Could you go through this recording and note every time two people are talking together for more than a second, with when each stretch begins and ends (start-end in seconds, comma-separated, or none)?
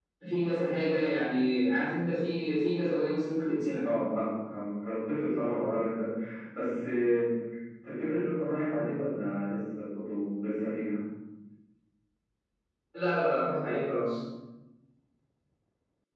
none